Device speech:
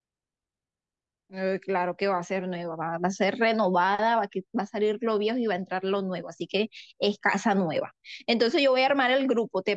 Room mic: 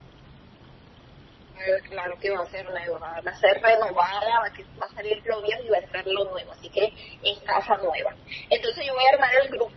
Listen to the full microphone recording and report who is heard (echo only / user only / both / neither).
echo only